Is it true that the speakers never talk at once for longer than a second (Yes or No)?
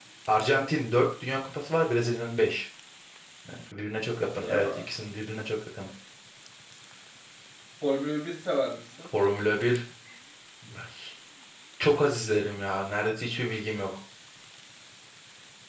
Yes